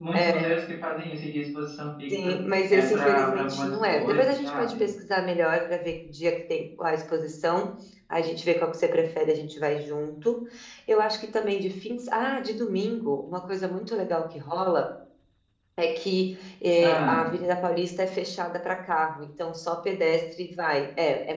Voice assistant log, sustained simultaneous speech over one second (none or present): present